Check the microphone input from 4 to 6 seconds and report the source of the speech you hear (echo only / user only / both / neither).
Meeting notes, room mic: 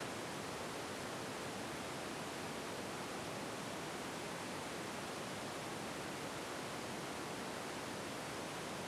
neither